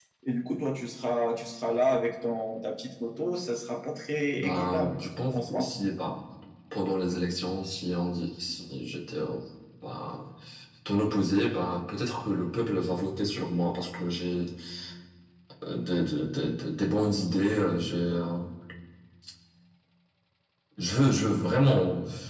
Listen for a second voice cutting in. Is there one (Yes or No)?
Yes